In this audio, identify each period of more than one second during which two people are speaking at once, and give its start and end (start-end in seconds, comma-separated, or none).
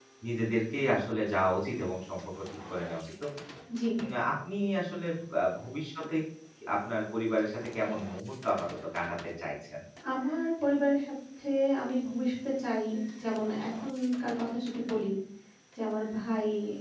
none